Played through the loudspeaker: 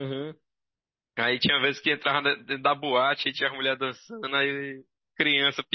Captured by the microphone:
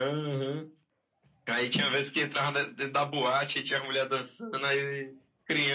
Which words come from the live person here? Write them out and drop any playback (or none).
none